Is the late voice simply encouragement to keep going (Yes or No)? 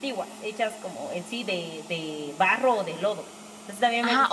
No